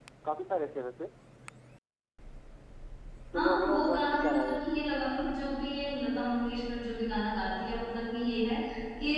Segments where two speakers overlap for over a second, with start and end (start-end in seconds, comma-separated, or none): 3.4-4.8